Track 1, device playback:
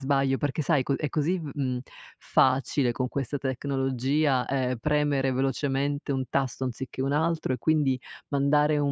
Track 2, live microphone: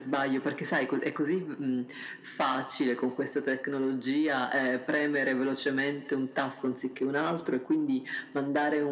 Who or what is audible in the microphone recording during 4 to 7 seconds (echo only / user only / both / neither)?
echo only